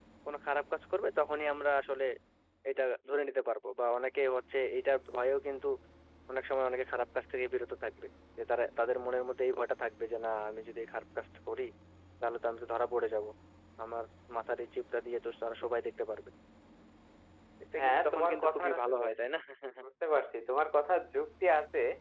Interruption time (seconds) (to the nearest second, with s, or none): 18 s